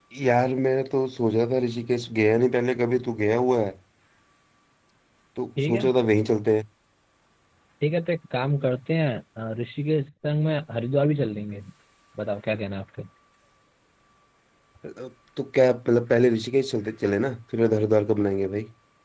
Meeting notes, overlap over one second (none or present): none